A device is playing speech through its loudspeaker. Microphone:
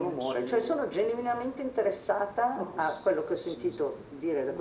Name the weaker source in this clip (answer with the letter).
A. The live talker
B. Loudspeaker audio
A